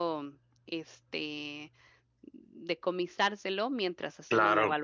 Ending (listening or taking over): listening